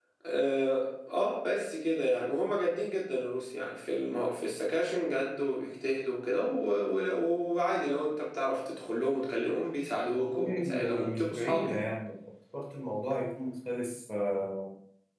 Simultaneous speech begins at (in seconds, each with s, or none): 10.2 s